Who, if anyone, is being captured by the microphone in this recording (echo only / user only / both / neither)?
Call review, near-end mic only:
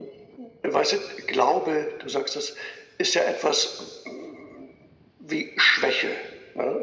echo only